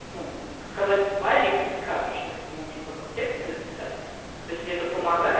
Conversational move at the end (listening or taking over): listening